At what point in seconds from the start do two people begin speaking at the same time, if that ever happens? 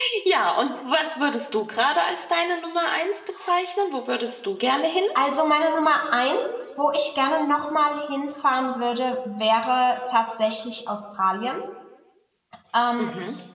none

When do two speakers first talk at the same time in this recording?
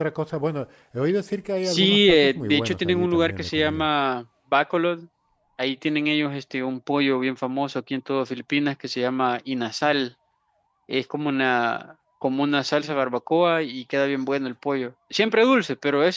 1.6 s

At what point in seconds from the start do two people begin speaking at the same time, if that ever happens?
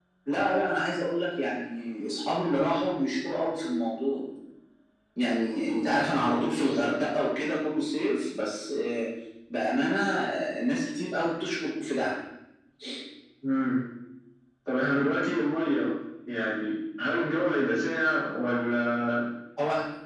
none

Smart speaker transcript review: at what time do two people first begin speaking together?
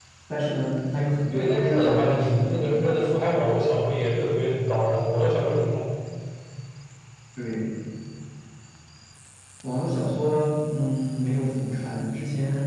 1.3 s

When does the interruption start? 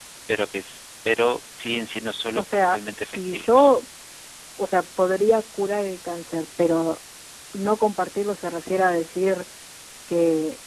2.4 s

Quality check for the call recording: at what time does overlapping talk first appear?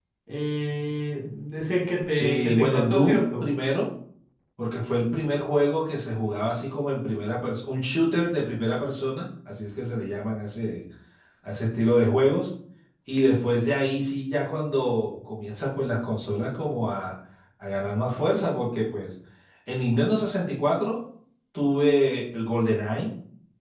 2.1 s

